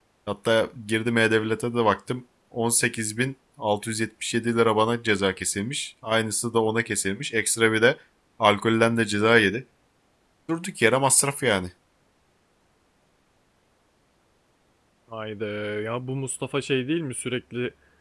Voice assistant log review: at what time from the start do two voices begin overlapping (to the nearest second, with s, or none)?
none